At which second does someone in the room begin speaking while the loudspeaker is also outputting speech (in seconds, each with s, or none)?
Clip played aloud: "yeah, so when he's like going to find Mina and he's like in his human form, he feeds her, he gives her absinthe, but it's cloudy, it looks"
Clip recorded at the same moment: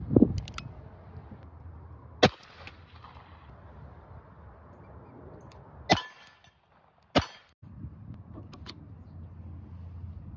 none